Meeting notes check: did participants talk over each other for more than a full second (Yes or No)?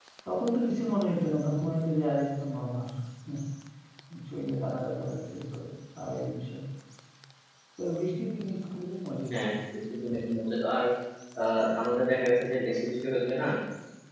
No